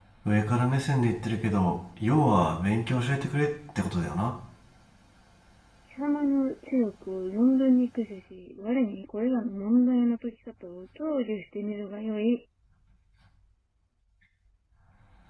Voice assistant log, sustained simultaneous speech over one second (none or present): none